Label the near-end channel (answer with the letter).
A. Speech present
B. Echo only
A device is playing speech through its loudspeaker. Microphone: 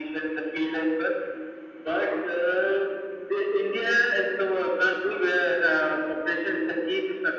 B